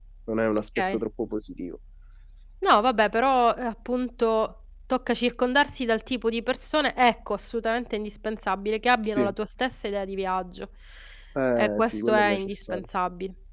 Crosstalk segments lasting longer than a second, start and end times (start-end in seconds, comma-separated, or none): 11.6-12.8